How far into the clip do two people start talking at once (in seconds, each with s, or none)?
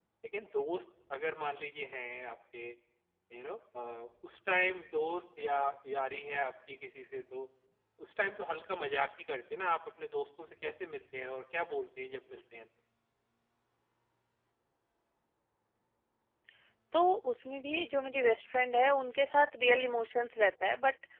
none